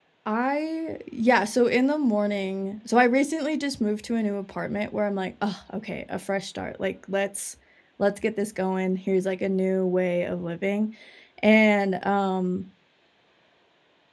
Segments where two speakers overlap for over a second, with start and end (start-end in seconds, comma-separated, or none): none